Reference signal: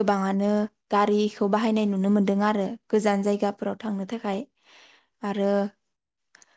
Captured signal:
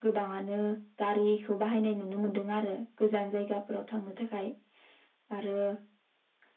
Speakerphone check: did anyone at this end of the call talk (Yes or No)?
No